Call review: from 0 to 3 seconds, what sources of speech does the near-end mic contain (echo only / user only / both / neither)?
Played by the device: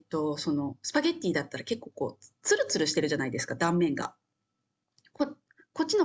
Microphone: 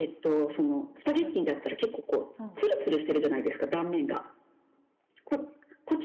both